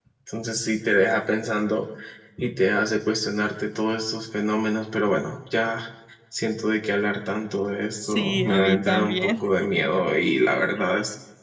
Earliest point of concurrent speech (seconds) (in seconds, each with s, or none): 8.0 s